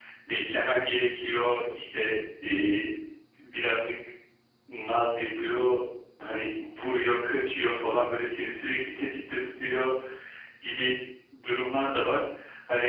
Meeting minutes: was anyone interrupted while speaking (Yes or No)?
No